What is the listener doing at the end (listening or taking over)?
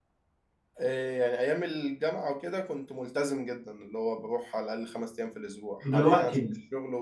listening